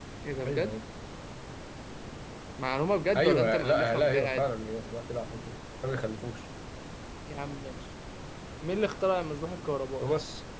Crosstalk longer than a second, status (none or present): present